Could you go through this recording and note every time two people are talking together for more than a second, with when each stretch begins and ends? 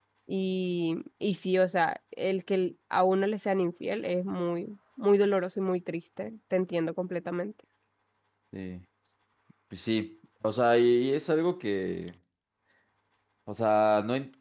none

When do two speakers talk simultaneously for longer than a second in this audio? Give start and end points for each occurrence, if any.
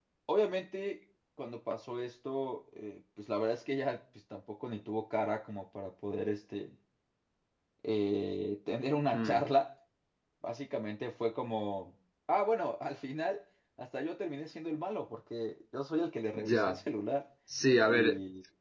none

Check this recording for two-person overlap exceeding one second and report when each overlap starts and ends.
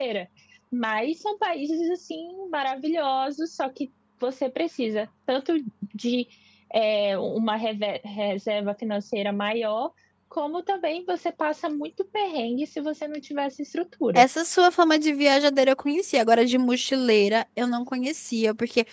none

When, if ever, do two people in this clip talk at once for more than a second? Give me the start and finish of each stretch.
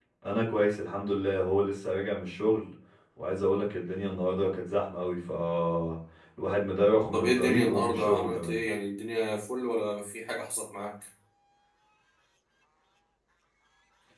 7.1-8.6

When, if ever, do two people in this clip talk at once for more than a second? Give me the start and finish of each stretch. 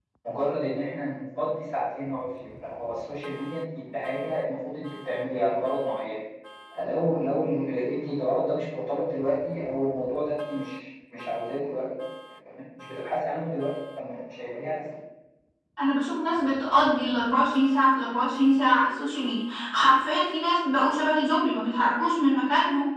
none

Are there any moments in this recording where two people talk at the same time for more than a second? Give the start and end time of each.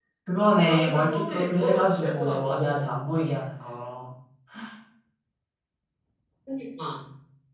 0.7-2.9

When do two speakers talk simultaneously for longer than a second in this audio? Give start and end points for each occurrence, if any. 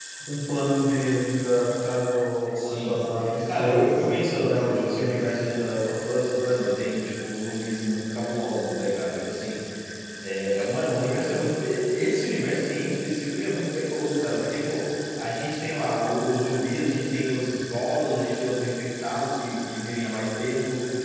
2.5-5.4

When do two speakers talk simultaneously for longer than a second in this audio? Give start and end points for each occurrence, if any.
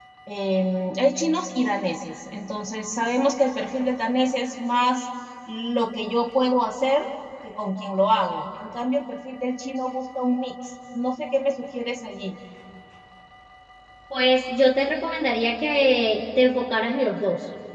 none

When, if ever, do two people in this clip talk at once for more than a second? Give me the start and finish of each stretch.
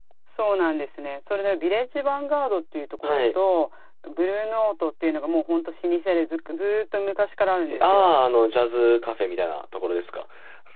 none

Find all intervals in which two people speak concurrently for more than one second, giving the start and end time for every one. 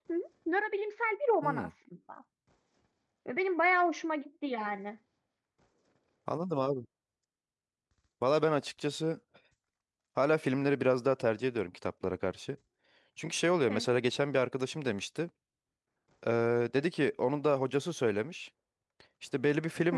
none

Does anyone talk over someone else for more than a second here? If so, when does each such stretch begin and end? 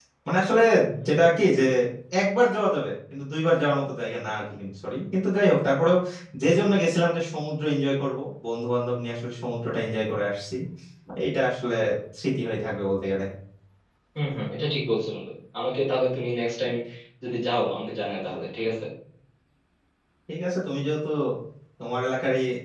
none

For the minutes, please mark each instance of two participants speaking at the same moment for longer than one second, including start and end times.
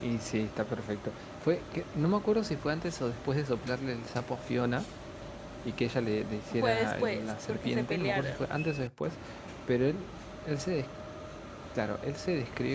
6.6-8.5

